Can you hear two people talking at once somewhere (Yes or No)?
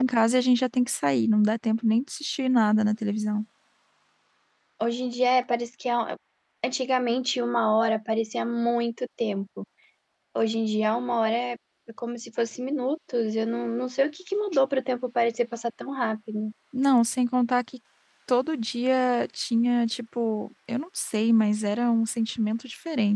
No